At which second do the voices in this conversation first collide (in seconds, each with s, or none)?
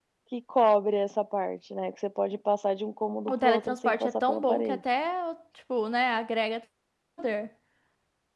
3.3 s